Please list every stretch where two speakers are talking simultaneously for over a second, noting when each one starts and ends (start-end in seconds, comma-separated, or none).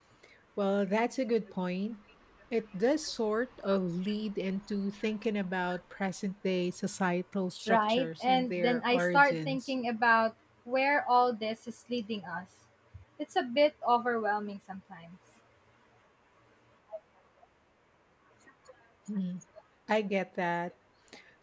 7.7-9.7